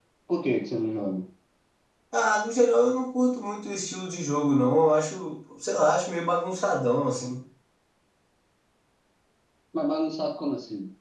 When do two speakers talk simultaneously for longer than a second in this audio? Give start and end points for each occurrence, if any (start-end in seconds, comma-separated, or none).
none